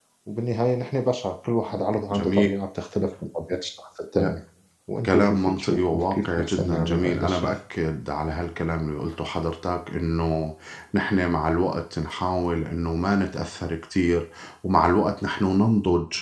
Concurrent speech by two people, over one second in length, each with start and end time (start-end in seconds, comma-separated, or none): 5.1-7.5